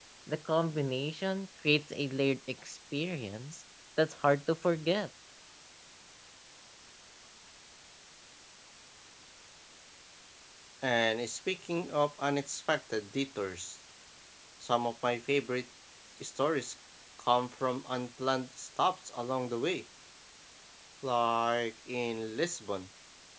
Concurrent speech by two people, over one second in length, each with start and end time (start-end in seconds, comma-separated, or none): none